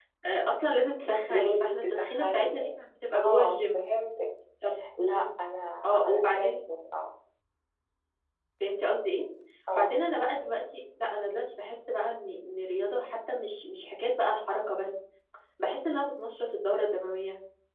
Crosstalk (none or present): present